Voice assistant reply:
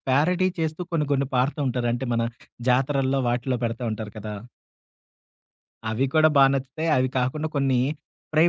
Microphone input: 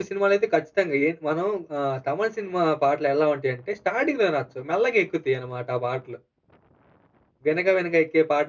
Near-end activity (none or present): present